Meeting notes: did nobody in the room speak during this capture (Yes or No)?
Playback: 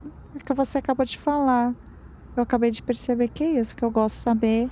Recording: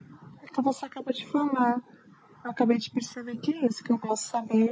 Yes